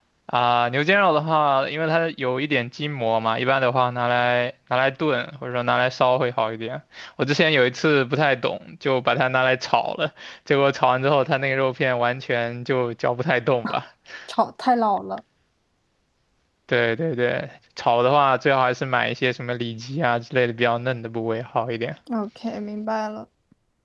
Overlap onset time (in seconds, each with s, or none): none